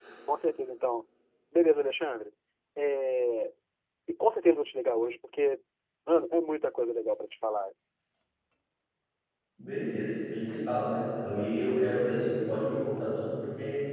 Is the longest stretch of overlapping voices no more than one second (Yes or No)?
Yes